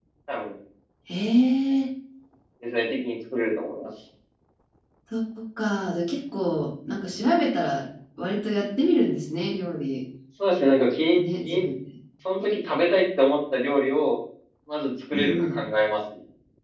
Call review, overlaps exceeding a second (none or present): none